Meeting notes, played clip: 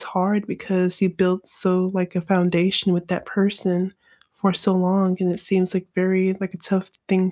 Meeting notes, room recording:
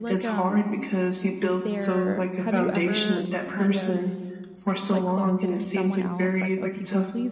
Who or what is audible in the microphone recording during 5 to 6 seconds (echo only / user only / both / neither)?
both